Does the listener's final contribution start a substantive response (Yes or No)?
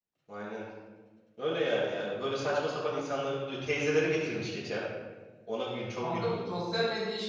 Yes